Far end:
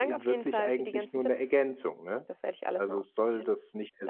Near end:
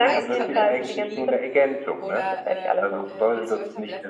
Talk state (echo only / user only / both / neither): both